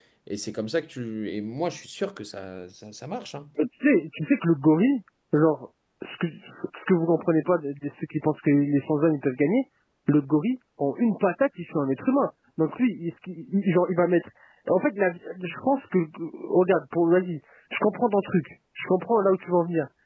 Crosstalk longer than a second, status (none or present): none